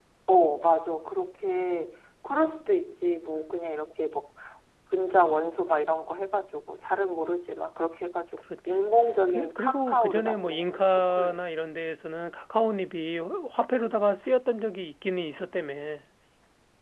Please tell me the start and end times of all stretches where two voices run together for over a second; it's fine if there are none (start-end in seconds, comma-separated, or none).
9.3-11.4